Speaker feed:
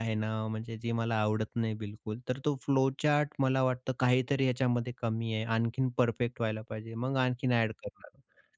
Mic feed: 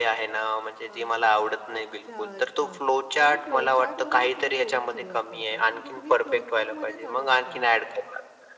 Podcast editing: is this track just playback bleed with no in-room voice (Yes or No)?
No